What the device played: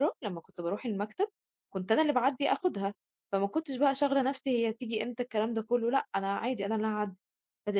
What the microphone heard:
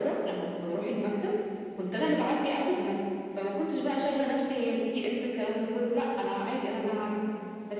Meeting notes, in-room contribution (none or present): none